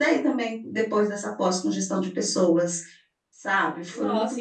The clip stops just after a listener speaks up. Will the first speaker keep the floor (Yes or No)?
No